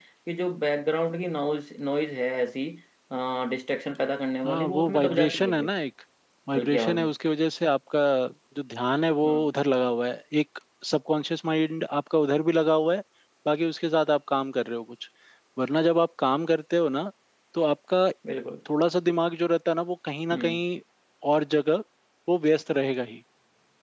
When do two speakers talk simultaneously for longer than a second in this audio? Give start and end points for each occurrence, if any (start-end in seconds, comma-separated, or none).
4.4-5.7